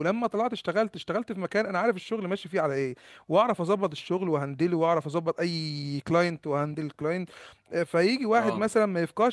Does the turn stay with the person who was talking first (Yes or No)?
Yes